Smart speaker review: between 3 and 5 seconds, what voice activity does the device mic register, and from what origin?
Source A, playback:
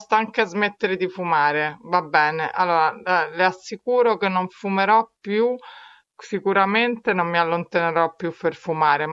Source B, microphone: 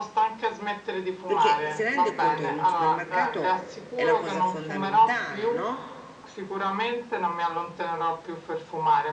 both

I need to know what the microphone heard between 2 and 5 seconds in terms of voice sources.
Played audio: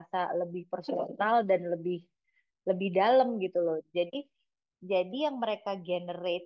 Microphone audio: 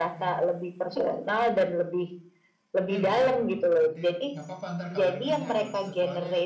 both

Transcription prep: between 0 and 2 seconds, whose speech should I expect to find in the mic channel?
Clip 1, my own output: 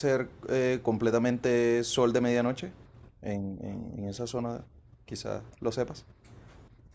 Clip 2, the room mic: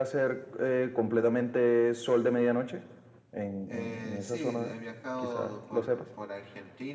echo only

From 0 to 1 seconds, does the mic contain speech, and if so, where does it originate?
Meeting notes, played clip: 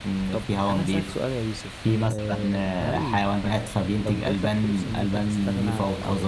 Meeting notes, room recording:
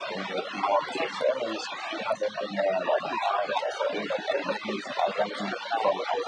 echo only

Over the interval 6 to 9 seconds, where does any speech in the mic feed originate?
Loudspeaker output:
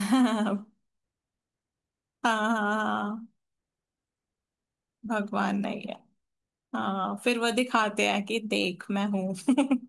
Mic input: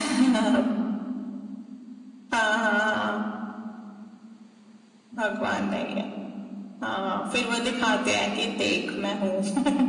echo only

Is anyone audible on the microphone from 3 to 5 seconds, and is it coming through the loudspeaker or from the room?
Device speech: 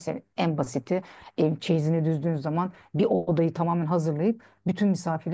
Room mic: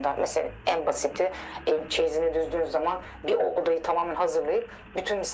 echo only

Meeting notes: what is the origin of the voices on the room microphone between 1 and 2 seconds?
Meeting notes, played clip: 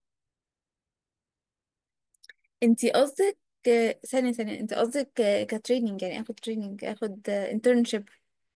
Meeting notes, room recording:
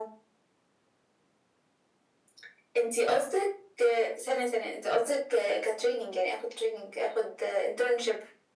neither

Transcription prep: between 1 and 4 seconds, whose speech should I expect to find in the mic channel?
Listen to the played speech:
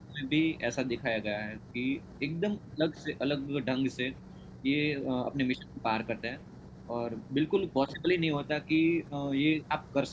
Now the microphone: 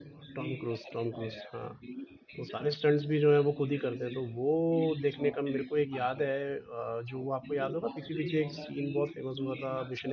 both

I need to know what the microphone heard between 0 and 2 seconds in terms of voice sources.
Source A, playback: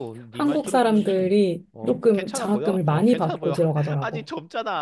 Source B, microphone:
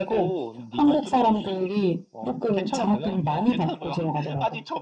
echo only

